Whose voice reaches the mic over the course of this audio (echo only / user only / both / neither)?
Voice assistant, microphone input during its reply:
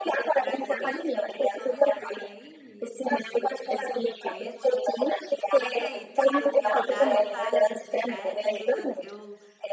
both